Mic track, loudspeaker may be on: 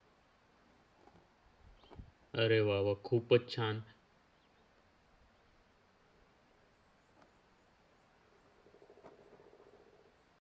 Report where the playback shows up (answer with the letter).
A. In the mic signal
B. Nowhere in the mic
B